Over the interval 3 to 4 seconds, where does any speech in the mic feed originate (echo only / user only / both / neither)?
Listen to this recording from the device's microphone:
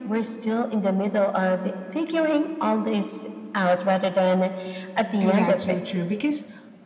echo only